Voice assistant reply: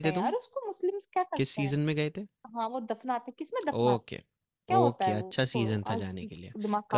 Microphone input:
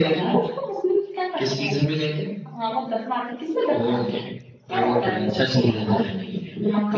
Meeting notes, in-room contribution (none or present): none